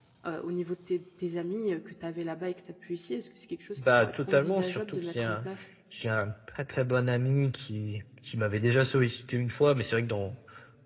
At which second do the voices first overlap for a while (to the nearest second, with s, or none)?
4 s